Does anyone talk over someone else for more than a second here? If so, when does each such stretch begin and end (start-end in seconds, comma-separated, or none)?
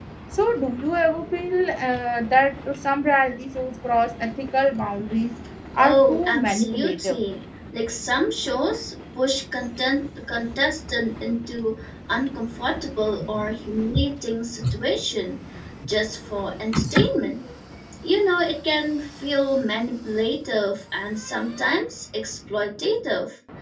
5.8-7.2